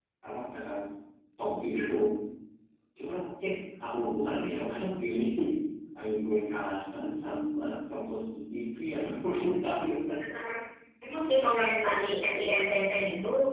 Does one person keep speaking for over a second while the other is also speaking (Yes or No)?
No